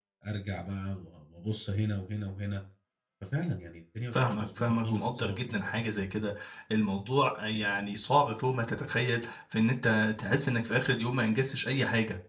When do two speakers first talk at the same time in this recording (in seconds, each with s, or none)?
4.1 s